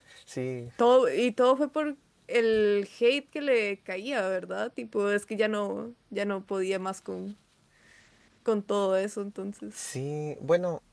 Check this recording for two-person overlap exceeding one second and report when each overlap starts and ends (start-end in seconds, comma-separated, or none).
none